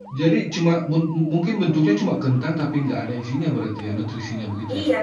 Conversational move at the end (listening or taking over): taking over